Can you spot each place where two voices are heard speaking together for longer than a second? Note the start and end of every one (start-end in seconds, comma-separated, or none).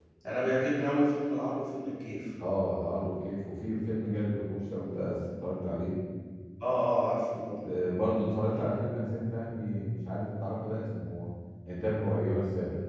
none